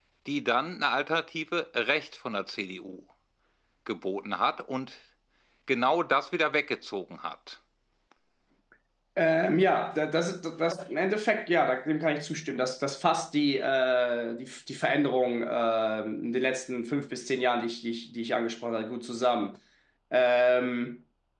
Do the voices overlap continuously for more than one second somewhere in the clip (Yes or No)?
No